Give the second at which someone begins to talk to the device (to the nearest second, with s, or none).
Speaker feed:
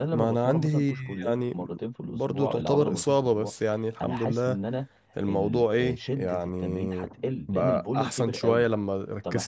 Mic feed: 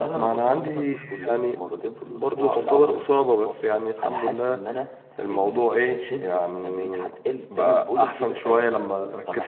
none